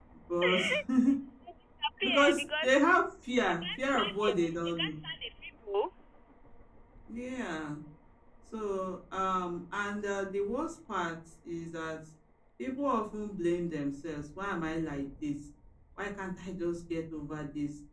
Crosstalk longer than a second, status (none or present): present